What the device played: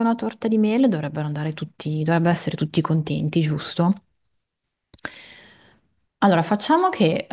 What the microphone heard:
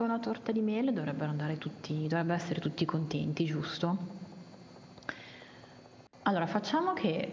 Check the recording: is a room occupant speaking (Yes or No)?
No